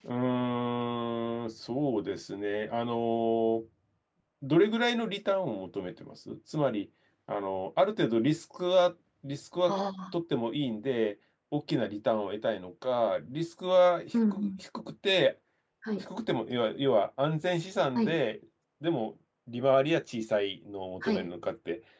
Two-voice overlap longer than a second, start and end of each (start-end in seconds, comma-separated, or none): none